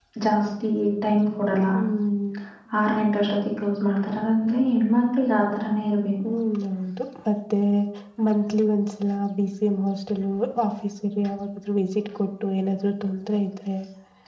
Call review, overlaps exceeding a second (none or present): none